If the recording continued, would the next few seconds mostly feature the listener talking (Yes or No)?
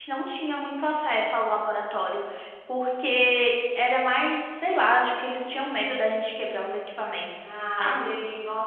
Yes